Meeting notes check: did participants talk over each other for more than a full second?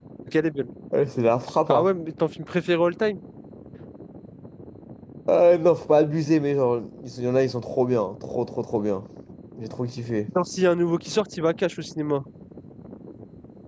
No

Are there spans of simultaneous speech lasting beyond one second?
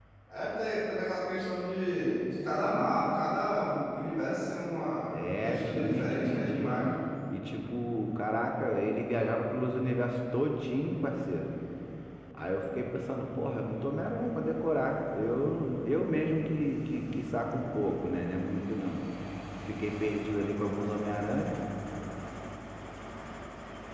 Yes, from 5.1 s

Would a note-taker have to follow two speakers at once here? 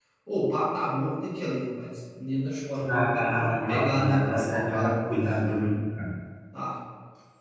Yes, from 2.7 s

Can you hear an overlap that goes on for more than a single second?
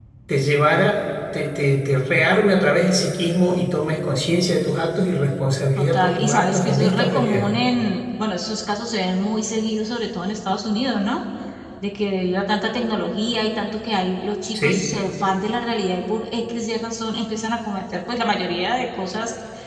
Yes, from 5.8 s

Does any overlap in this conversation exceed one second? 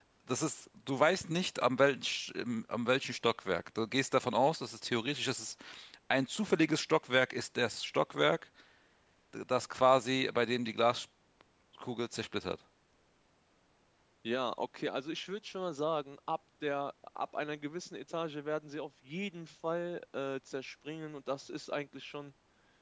No

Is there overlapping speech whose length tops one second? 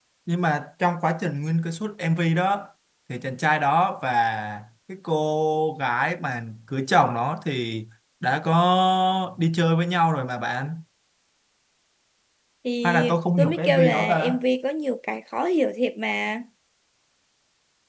Yes, from 12.8 s

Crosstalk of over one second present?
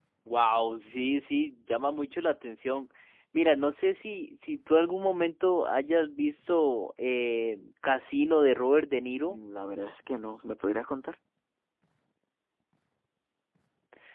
No

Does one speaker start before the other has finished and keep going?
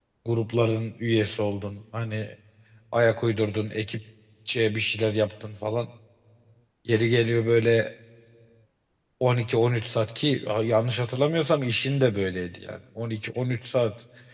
No

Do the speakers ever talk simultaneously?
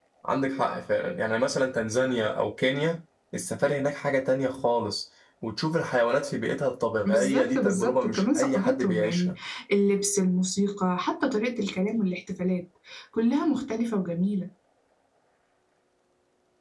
Yes, from 7.0 s

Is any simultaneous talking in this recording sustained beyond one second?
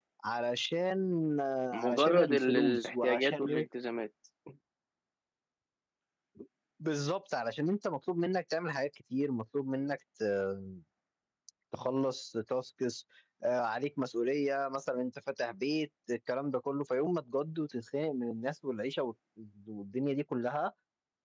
Yes, from 1.7 s

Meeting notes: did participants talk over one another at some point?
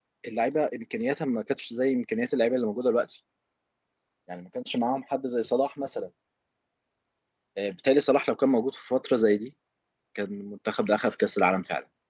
No

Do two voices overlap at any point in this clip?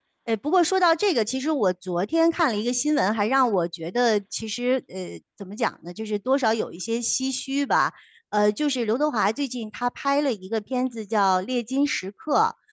No

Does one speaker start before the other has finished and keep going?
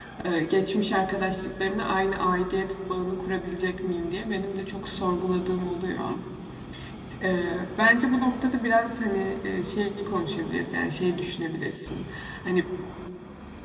No

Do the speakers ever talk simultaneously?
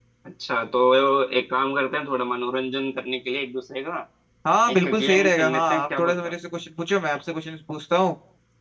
Yes, from 4.7 s

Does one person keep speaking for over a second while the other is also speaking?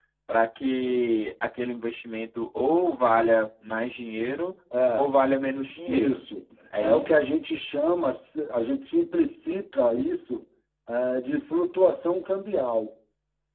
No

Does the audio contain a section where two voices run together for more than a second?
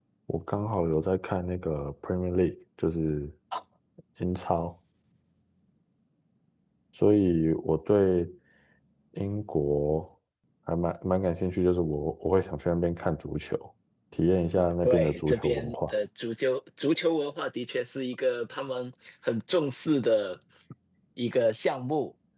Yes, from 14.5 s

